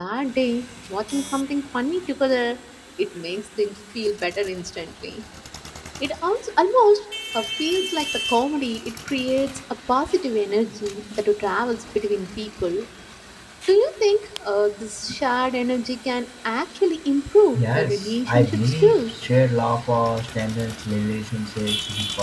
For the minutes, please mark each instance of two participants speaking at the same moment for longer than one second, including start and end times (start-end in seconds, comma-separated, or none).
17.6-19.1